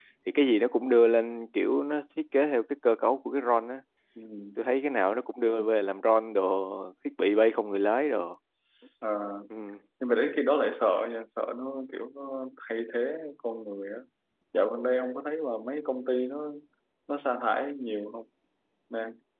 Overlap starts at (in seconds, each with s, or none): none